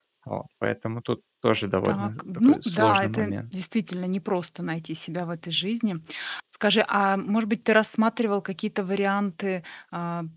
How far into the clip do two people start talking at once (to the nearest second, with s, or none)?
2 s